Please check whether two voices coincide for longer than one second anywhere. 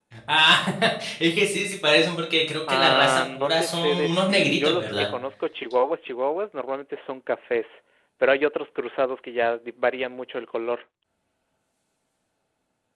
Yes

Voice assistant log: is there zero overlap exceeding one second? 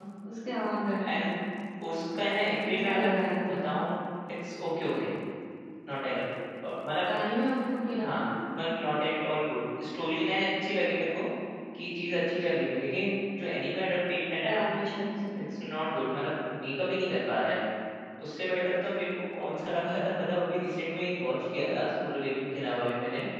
Yes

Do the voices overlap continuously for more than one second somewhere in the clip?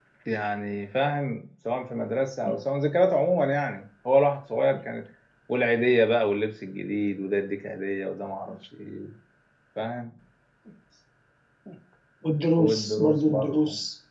Yes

